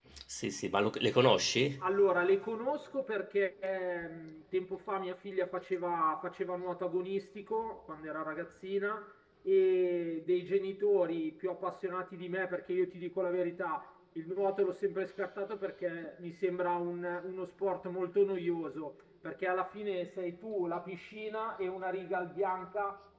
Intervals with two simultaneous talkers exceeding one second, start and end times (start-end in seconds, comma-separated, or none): none